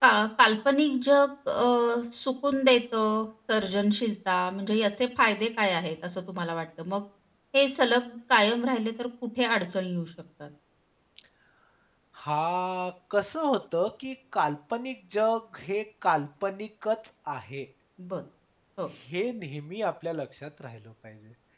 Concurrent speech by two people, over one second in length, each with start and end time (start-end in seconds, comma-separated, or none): none